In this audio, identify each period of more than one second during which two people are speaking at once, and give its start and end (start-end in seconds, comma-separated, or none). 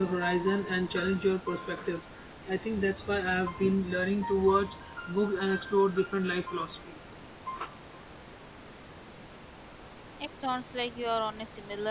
none